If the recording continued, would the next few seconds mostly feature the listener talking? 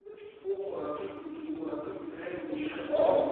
Yes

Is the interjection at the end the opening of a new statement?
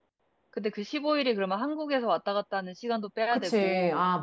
Yes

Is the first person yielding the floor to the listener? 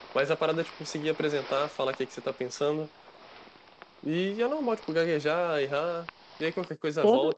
No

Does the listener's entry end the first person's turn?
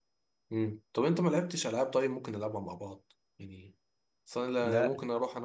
No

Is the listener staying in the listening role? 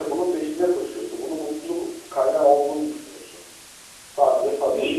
No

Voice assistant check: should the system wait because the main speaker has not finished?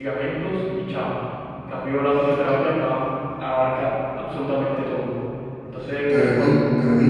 No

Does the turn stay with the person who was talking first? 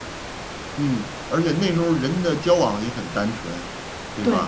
Yes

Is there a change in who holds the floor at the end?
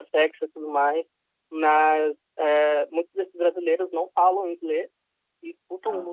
No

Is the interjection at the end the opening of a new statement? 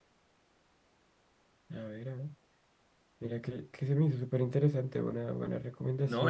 Yes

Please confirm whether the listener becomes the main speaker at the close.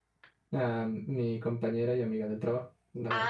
Yes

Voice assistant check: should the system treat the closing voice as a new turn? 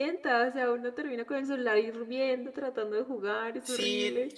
Yes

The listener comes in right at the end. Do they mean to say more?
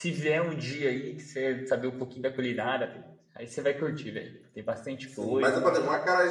Yes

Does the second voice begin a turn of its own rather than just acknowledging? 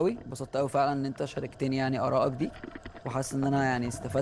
No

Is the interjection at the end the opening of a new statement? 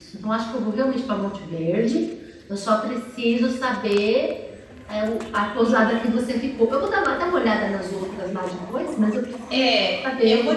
Yes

